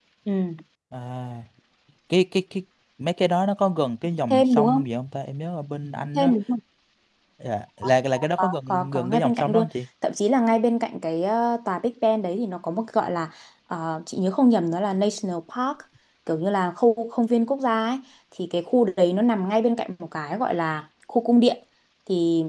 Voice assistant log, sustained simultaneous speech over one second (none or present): present